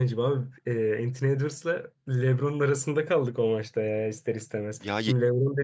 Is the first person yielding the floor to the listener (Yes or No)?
No